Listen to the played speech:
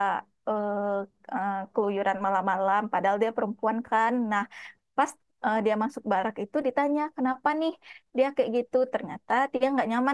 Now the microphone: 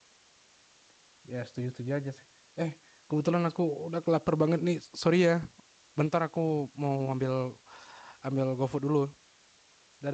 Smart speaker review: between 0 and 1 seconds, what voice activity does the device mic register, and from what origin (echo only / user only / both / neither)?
neither